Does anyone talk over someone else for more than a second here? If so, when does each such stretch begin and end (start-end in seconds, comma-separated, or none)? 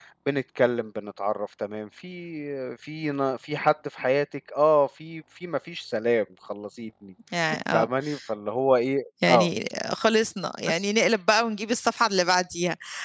none